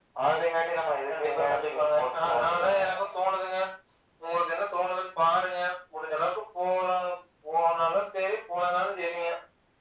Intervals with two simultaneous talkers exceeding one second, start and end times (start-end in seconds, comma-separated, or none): 1.1-2.8